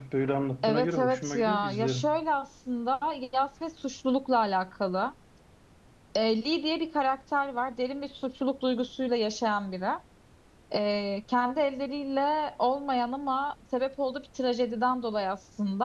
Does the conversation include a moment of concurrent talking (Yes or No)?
Yes